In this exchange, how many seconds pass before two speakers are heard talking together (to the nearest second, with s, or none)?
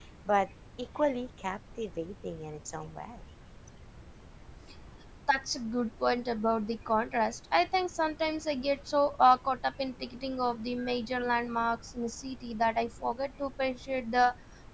none